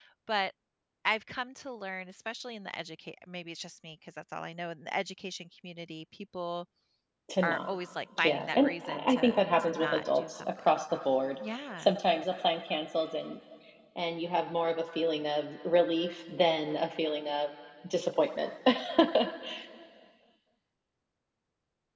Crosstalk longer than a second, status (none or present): present